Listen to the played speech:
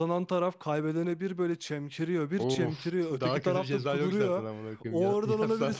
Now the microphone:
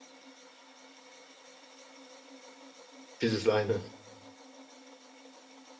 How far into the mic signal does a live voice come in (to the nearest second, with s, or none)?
3 s